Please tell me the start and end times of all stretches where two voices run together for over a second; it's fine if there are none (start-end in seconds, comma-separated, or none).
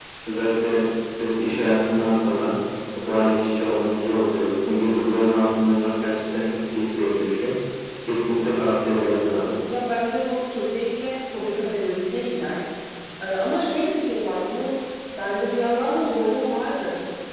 none